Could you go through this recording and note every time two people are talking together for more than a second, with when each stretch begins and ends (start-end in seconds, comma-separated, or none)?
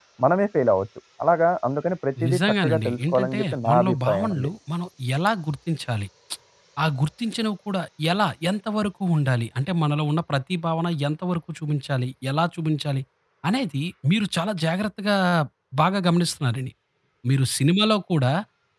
2.3-4.5